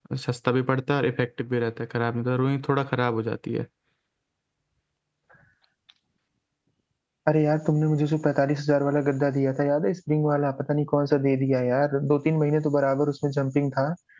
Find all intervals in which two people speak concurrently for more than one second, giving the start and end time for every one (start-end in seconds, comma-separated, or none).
none